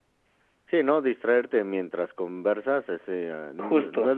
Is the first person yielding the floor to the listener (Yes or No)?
No